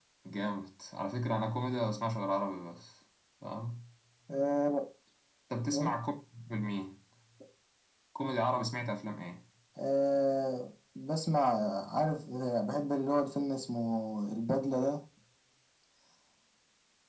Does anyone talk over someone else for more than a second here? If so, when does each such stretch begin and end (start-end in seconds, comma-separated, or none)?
none